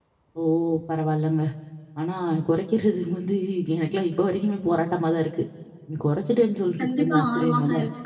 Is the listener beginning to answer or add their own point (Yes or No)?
Yes